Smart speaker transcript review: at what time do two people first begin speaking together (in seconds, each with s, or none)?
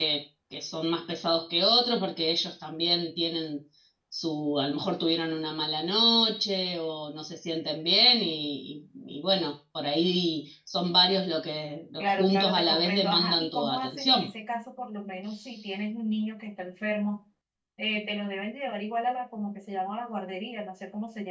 12.0 s